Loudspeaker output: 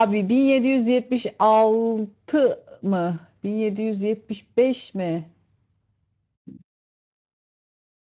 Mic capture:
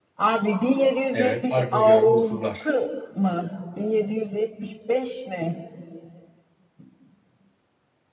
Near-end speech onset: 1.1 s

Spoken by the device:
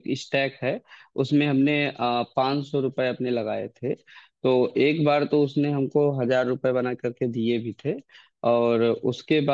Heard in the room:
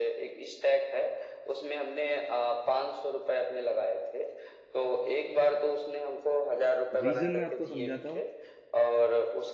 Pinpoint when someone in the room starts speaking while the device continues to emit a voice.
6.7 s

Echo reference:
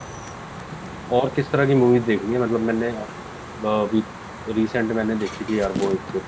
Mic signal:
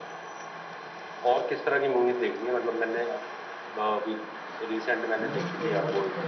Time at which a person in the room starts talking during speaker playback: 5.2 s

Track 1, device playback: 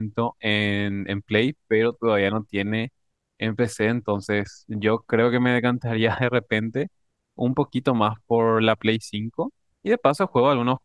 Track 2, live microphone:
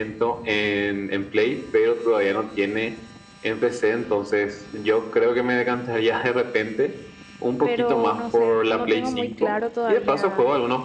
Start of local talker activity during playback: 7.6 s

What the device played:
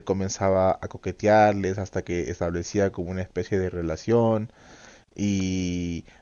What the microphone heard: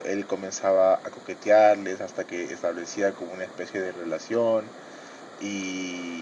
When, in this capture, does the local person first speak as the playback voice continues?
none

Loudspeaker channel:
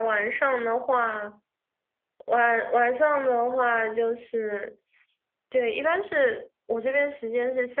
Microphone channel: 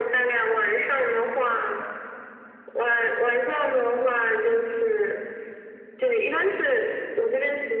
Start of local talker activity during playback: none

